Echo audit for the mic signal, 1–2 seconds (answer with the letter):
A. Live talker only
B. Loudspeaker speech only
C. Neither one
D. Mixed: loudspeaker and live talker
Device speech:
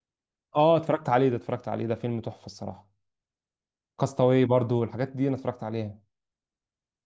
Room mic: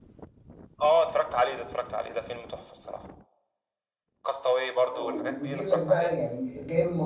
B